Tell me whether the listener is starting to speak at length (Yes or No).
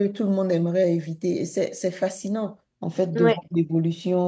No